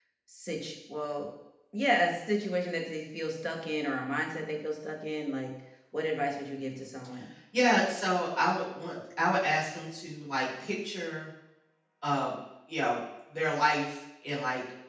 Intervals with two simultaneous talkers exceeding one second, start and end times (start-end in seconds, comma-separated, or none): none